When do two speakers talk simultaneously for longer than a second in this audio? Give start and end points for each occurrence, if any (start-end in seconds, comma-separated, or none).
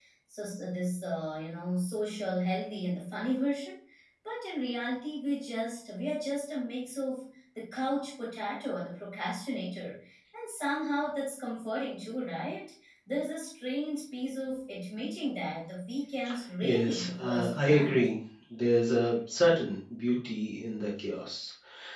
16.6-18.1